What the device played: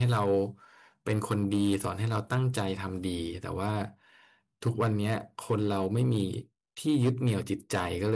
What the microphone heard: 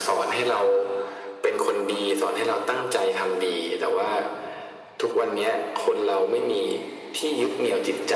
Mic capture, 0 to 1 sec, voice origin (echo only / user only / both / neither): echo only